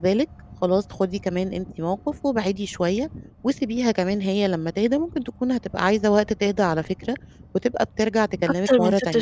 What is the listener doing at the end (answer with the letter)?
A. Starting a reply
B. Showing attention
A